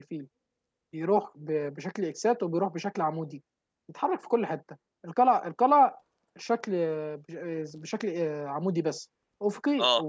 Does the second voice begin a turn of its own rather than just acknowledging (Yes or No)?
No